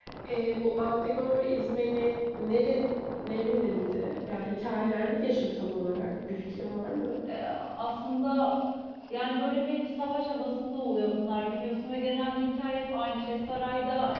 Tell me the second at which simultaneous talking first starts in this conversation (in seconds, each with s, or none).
none